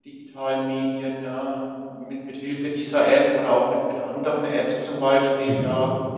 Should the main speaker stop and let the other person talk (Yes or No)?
No